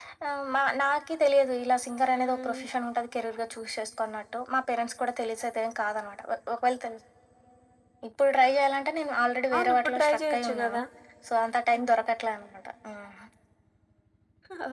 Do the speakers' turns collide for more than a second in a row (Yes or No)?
Yes